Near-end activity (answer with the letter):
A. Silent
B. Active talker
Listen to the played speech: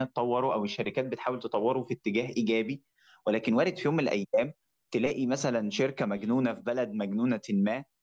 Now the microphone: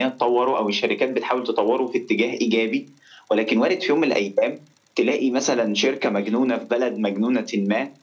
A